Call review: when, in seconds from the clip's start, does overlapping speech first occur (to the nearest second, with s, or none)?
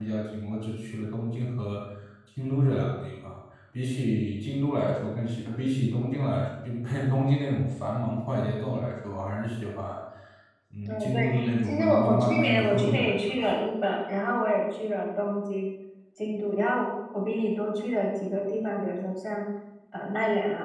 11 s